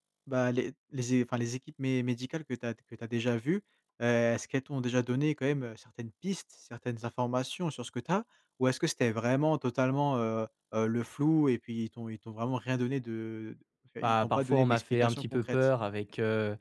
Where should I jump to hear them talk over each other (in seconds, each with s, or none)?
14.0 s